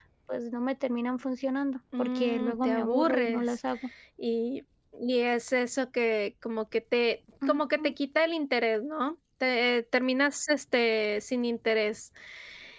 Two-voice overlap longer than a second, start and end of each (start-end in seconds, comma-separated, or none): 2.0-3.4